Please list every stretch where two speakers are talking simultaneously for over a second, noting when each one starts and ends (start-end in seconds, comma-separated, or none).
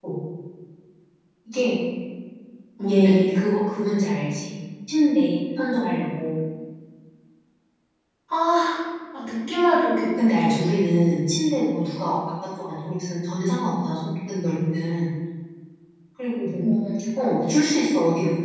none